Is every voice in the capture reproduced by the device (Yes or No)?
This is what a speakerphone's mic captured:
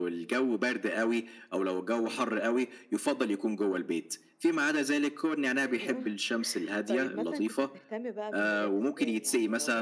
No